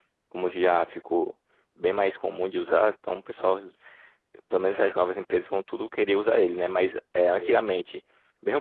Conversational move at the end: listening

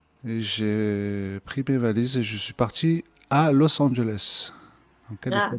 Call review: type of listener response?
taking over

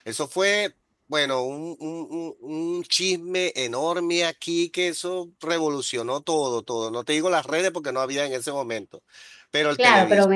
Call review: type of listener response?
taking over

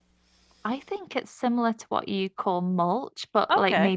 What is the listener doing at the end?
listening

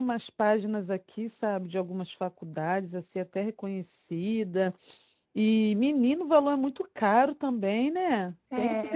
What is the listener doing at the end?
taking over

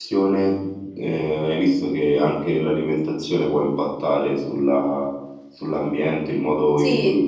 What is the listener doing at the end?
listening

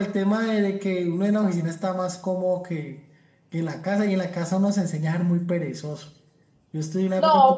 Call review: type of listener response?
listening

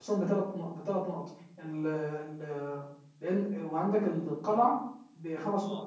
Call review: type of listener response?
listening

